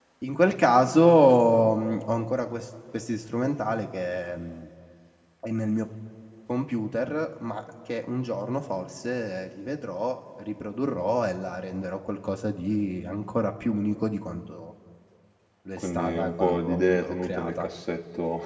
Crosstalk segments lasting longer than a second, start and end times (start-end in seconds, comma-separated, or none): 15.8-17.7